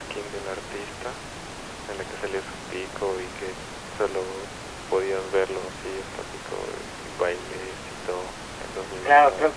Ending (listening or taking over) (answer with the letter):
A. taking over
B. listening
A